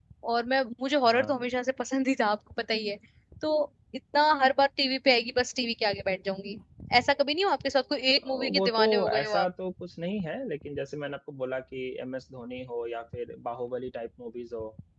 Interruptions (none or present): present